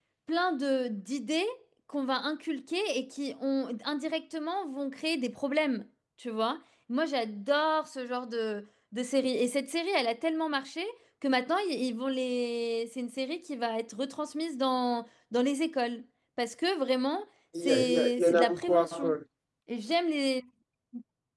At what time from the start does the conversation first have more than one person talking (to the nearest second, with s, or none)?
18 s